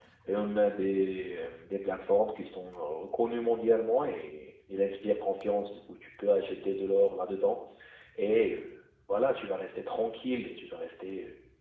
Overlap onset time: none

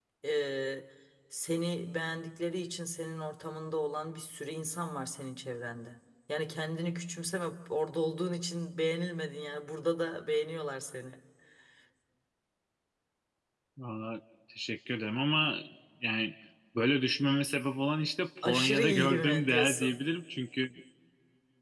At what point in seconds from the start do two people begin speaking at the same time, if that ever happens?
18.4 s

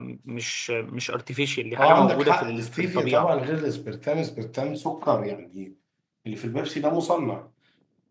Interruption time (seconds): 1.8 s

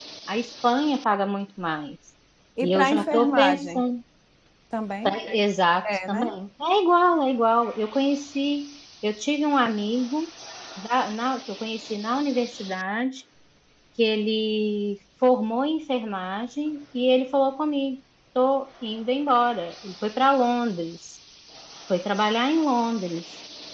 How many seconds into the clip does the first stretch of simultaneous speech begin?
2.6 s

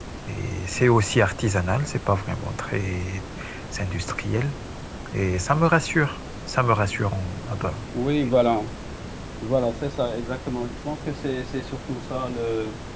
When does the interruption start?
none

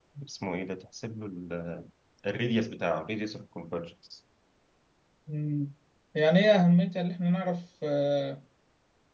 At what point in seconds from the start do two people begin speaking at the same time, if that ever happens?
none

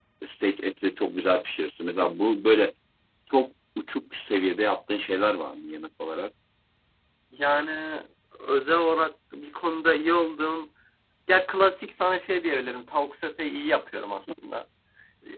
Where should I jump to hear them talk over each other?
none

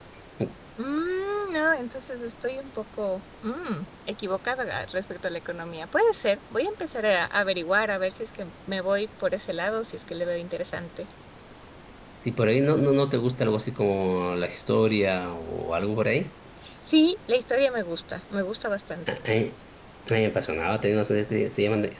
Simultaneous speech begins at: none

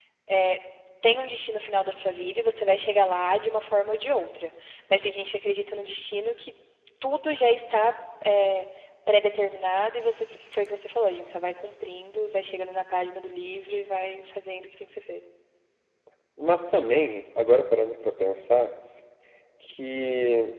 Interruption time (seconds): none

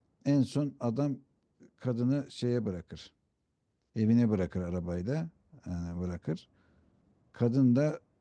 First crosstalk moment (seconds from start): none

